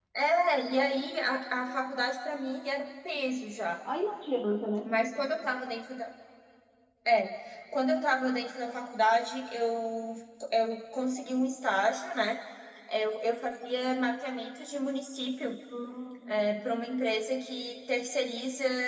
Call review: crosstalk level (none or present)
none